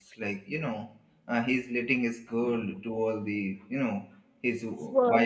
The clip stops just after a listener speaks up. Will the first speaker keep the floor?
Yes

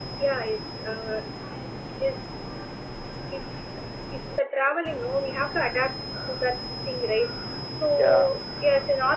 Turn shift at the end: No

